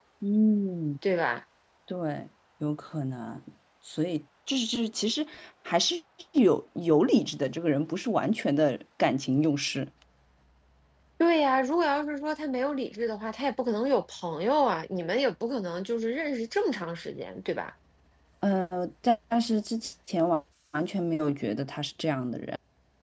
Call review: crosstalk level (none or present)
none